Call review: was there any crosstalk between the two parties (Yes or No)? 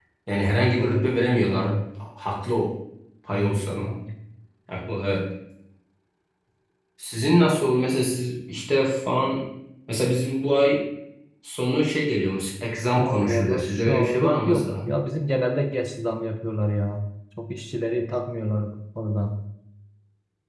Yes